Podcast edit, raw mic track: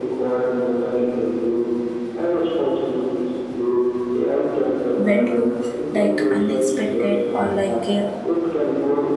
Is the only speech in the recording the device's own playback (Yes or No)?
No